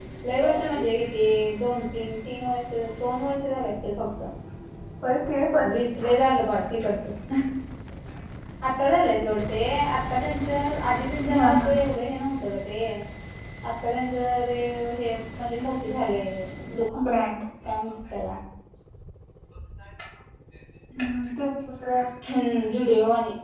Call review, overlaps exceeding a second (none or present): none